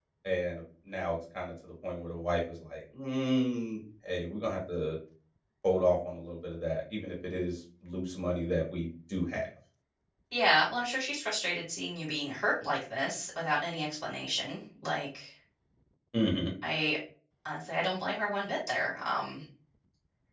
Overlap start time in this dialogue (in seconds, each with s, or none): none